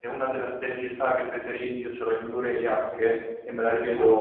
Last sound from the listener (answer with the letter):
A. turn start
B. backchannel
B